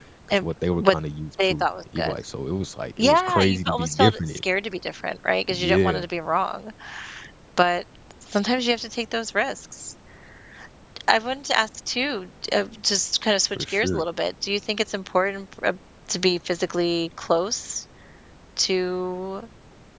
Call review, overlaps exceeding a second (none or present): present